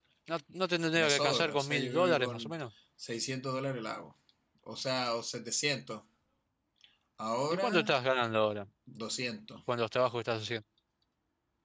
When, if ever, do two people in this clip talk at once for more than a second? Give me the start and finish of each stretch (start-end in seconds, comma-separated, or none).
1.0-2.5